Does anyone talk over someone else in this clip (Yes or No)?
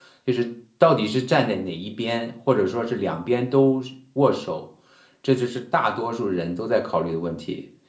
No